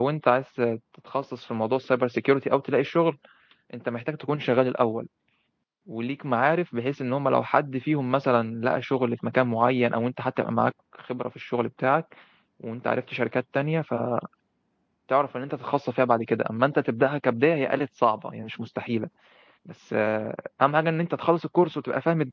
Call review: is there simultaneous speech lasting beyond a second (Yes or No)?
No